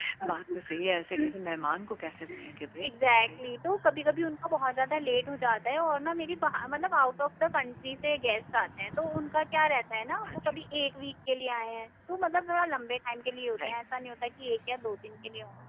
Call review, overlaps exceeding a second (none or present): none